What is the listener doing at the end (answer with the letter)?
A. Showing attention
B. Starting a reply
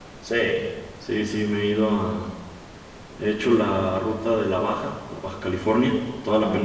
A